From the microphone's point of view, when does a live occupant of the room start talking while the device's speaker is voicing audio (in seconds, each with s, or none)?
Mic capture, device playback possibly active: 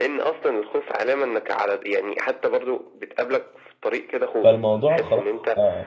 4.4 s